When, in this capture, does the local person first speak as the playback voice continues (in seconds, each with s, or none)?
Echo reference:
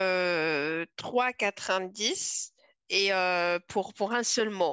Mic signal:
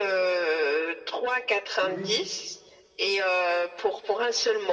1.8 s